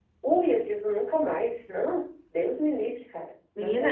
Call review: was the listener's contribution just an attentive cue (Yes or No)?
No